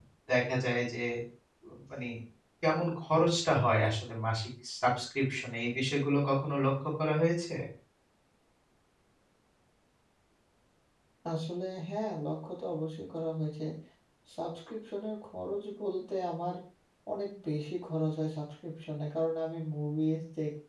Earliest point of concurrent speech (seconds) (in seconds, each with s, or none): none